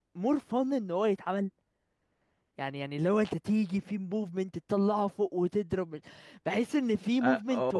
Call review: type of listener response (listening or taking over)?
listening